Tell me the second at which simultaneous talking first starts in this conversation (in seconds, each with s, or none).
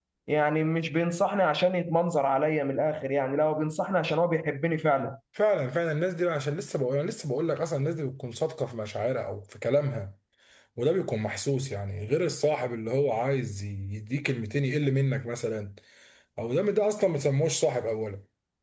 none